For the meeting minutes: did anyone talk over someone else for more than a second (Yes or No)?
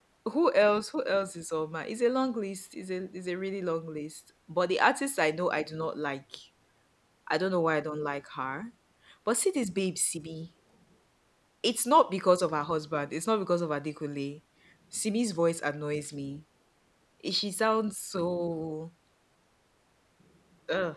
No